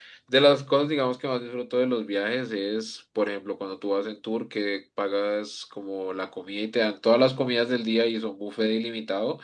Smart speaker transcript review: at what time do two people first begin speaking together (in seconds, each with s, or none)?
none